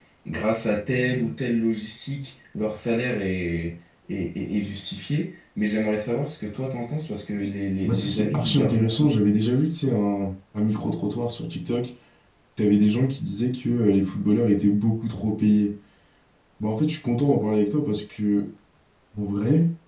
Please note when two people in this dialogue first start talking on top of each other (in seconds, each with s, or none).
7.8 s